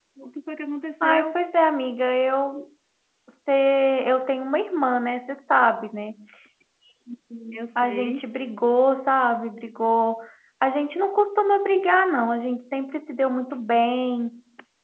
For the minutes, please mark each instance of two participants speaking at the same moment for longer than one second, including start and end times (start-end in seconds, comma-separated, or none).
none